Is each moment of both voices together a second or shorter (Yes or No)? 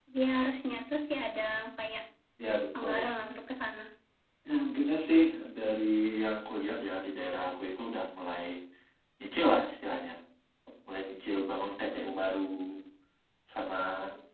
Yes